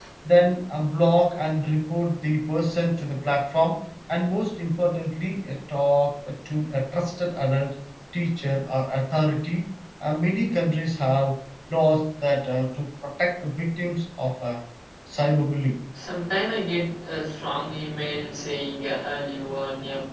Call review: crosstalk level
none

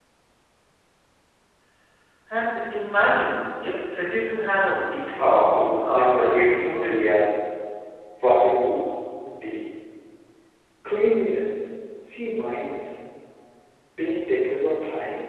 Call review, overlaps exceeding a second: present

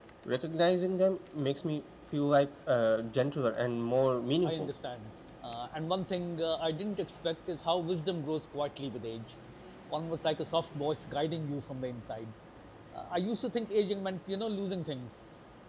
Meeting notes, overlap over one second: none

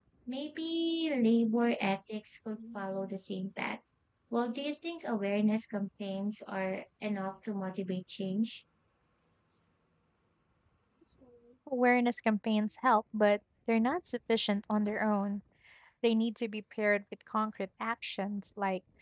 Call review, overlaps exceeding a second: none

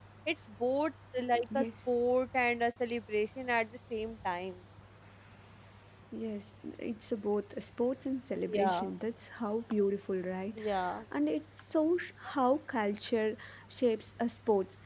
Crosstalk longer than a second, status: none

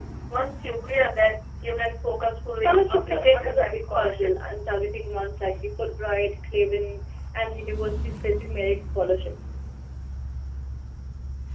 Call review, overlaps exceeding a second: present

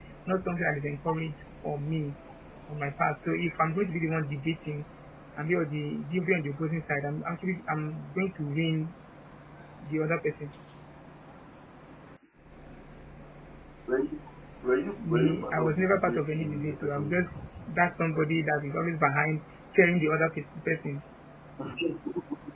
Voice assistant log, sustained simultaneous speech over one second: present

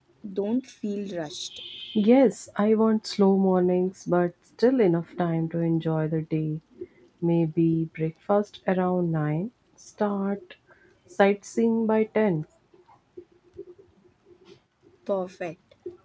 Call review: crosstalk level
none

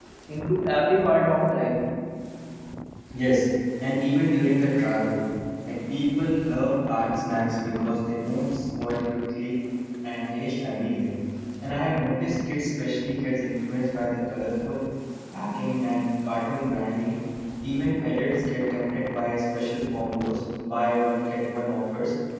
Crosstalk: none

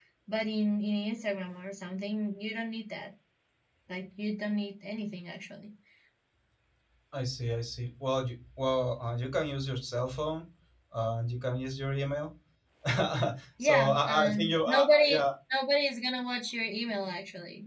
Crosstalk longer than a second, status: present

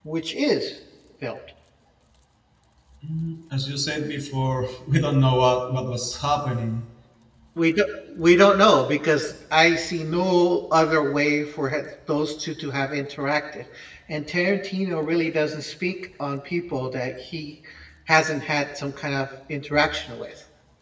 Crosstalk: none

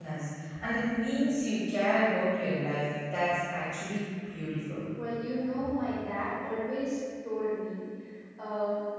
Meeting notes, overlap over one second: none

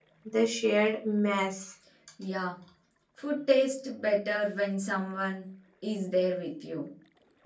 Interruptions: none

